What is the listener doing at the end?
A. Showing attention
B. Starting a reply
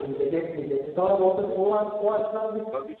B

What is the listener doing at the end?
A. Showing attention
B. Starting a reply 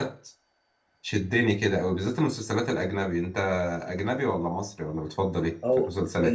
B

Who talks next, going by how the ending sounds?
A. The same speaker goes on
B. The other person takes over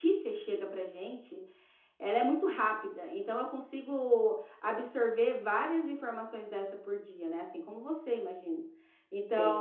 A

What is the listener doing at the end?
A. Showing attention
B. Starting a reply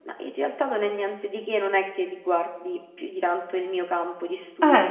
A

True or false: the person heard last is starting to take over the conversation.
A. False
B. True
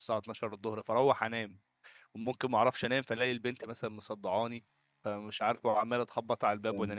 A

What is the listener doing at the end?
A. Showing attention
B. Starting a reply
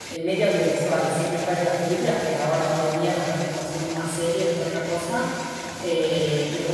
A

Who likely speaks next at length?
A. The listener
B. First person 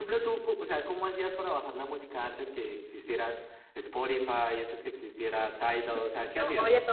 A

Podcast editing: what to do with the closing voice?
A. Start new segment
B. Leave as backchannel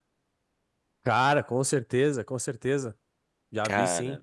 B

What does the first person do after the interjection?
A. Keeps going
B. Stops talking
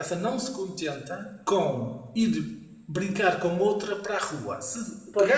A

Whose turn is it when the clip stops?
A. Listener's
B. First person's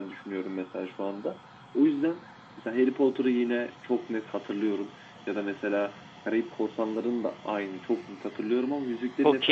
A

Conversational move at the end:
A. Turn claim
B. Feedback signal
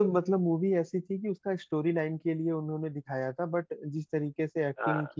B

